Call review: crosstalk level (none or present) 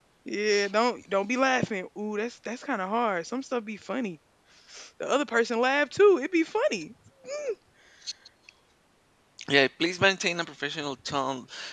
none